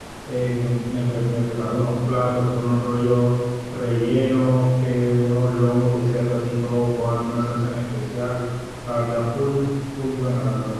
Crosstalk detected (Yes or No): No